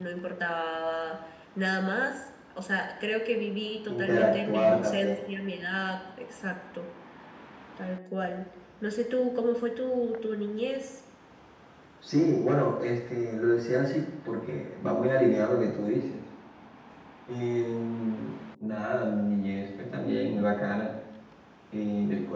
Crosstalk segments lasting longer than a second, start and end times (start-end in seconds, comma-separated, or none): 3.9-5.2